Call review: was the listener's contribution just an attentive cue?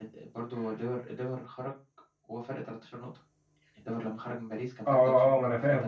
No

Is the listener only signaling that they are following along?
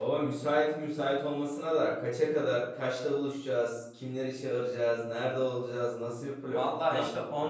No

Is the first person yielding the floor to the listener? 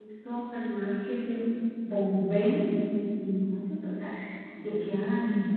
No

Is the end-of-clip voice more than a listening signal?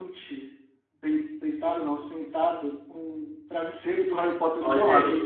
Yes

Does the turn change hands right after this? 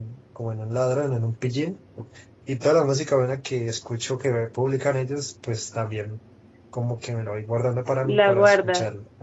No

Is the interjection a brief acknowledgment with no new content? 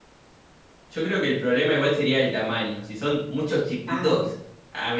Yes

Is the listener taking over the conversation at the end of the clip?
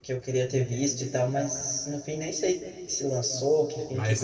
Yes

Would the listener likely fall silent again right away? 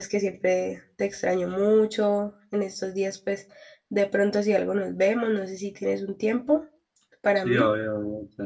No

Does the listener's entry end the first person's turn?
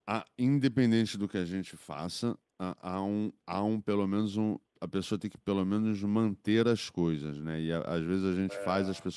No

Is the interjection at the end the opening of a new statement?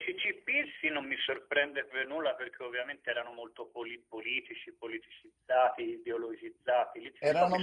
Yes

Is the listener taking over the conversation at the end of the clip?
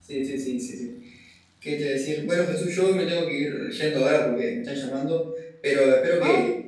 No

